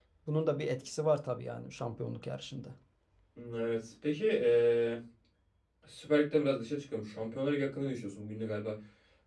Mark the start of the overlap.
none

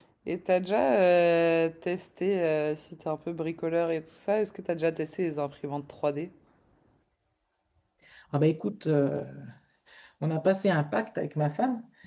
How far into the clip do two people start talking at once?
none

